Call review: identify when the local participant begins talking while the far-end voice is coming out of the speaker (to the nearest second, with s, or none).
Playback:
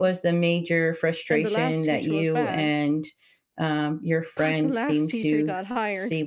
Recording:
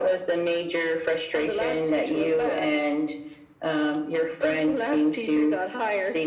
none